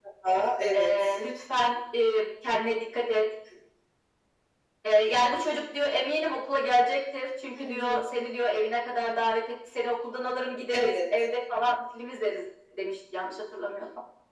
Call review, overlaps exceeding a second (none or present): none